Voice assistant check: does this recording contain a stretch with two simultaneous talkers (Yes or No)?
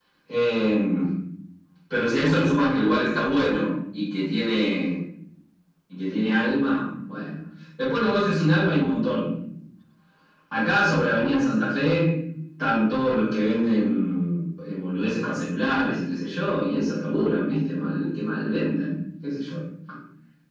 No